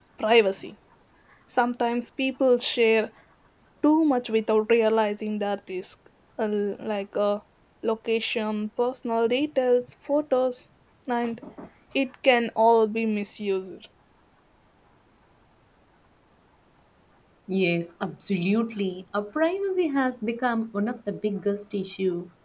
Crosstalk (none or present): none